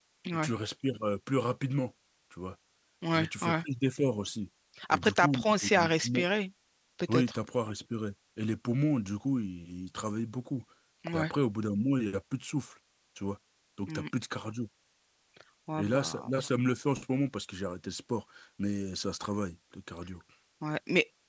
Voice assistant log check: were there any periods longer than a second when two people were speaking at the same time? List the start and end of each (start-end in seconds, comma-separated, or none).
4.9-6.2